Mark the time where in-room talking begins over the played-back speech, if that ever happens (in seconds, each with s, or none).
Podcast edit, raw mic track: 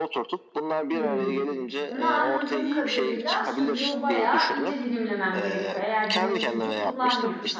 0.9 s